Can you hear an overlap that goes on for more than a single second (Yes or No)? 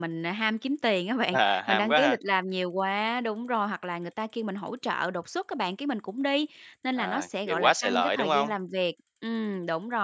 Yes